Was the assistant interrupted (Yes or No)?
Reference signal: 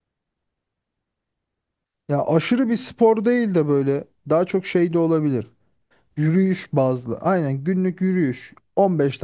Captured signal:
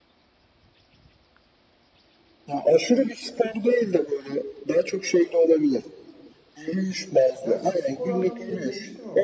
Yes